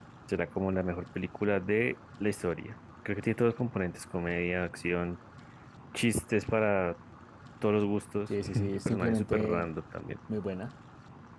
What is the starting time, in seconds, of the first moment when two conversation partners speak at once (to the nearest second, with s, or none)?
8 s